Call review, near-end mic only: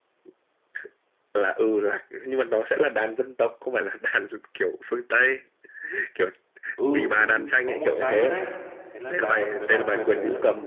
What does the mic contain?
both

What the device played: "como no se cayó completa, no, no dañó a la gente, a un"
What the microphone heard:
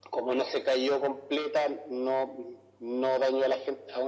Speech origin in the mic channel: echo only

